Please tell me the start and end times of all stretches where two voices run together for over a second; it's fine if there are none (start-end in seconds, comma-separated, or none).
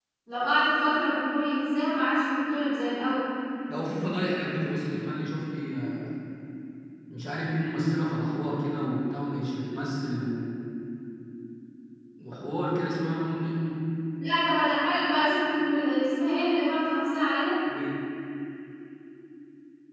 none